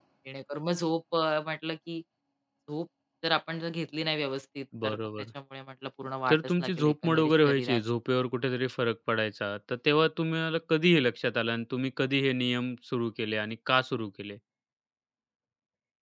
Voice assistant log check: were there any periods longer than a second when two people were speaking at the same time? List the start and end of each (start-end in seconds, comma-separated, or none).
6.3-7.8